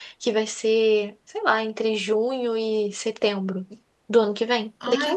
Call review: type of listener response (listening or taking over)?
taking over